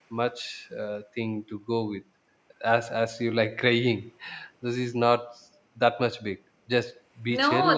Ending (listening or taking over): taking over